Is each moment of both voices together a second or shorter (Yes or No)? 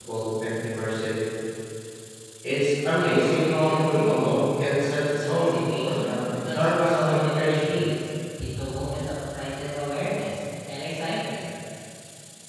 No